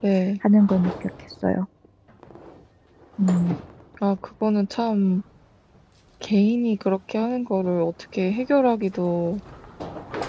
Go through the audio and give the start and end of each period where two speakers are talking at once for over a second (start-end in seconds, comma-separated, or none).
none